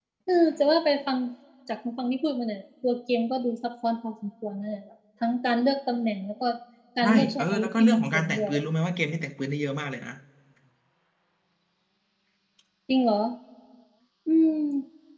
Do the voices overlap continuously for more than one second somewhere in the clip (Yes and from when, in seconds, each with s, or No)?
Yes, from 7.0 s